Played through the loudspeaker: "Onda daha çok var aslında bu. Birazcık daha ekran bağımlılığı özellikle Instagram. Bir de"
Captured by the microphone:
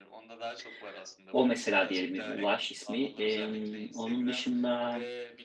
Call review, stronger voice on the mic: user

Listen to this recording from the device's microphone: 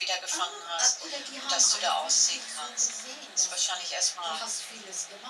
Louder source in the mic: echo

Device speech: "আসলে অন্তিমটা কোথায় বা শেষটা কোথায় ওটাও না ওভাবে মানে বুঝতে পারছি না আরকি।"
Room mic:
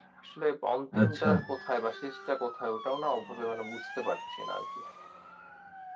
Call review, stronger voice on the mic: user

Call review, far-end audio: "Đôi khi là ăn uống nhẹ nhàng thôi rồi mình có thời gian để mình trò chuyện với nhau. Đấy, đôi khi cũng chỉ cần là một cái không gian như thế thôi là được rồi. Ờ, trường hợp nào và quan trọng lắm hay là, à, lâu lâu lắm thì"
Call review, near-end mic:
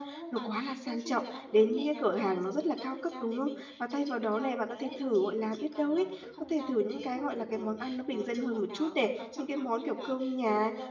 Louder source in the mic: user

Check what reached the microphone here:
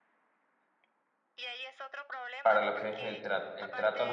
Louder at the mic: user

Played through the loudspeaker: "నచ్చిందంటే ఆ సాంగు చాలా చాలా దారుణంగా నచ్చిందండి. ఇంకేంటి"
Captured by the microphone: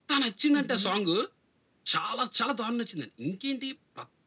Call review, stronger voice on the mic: echo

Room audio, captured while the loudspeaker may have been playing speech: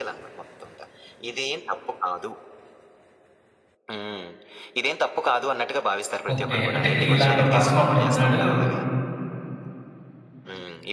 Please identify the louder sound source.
user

